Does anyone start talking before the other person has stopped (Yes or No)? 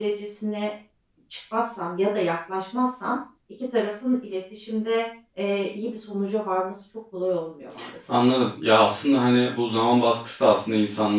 No